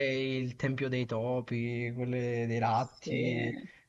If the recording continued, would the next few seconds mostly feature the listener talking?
No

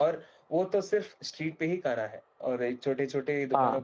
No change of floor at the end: Yes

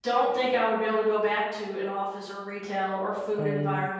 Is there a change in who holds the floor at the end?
No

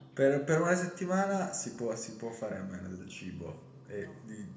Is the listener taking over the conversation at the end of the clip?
No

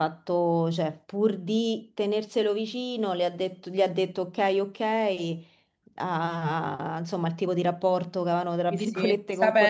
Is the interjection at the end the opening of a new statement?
Yes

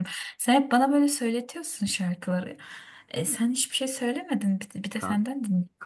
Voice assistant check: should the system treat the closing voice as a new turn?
Yes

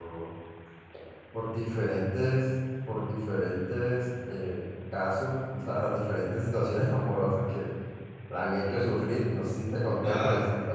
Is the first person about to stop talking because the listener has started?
No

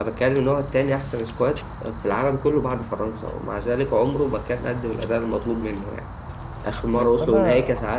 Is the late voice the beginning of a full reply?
No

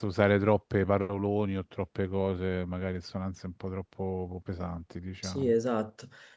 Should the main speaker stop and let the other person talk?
Yes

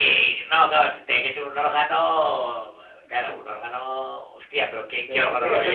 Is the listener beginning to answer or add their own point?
Yes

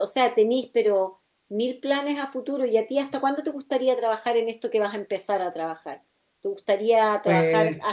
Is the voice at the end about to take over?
No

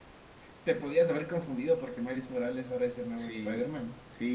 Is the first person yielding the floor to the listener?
Yes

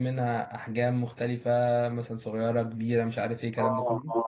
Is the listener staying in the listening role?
No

